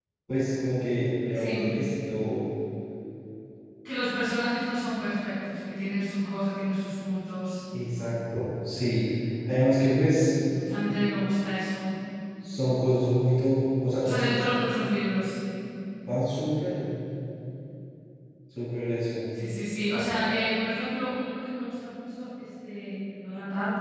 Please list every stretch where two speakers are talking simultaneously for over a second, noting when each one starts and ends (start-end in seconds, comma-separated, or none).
none